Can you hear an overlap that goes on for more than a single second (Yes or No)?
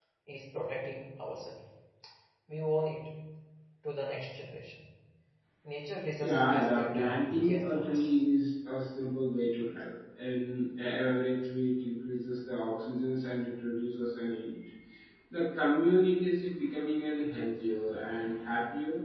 Yes